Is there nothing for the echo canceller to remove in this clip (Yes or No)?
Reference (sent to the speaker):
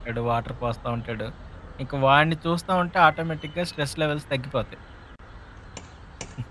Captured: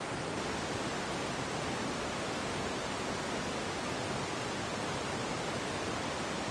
Yes